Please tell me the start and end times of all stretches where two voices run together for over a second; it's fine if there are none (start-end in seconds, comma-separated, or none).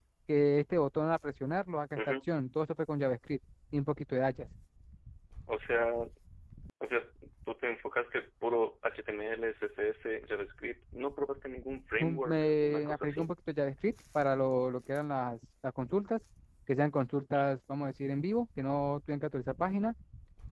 12.0-13.3